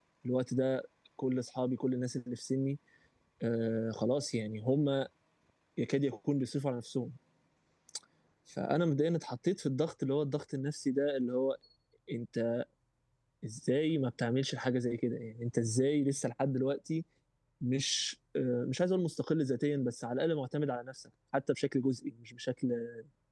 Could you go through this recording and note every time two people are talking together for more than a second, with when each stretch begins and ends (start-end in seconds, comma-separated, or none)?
none